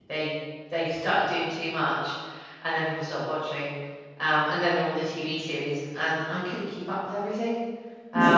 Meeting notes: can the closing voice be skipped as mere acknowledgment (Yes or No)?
No